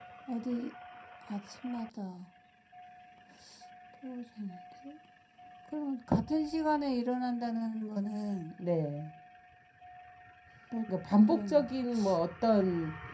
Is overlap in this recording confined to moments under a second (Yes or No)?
Yes